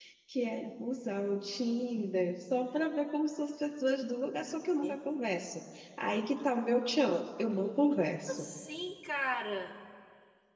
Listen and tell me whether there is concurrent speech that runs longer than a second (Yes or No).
No